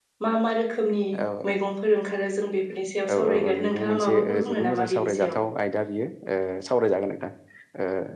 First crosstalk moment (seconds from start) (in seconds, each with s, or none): 3.3 s